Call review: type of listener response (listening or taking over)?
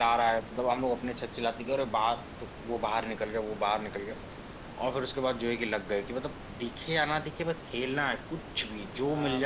taking over